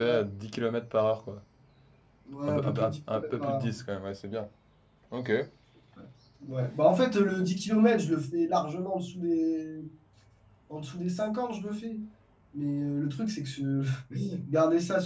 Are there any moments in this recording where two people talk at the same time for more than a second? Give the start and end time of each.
2.5-3.7

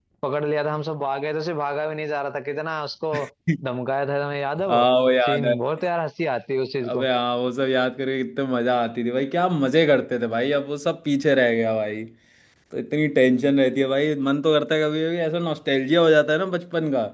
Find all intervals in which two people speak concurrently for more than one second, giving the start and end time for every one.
none

